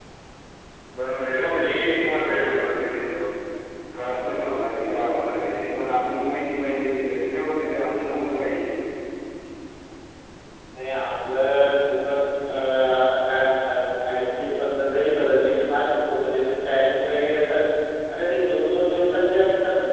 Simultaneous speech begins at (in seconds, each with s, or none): 1.3 s